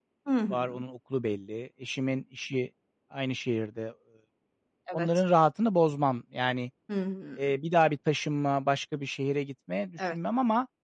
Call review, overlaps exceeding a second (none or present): none